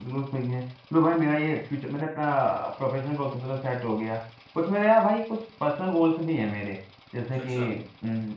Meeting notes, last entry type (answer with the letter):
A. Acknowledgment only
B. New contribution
A